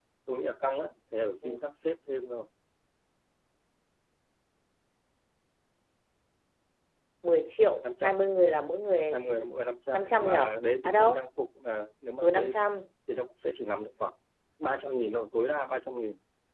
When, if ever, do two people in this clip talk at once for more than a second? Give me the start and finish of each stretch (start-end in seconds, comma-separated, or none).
9.9-11.2